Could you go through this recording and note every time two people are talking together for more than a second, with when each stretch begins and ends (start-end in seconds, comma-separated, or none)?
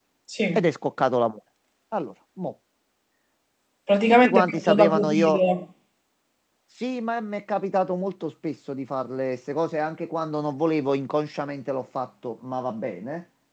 4.2-5.4